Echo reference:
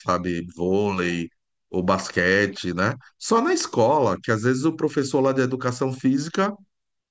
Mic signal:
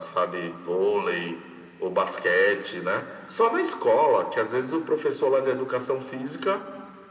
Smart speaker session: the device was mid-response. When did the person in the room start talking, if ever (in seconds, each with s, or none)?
none